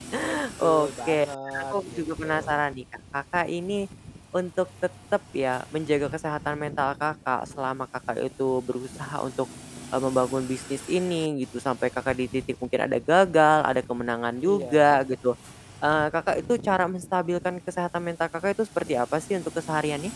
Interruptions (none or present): present